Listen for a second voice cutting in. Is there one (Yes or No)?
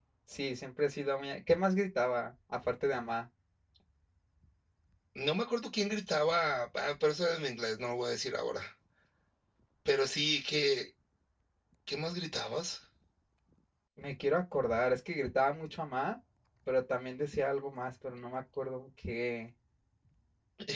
No